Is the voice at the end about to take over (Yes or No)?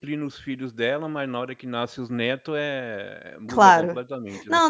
Yes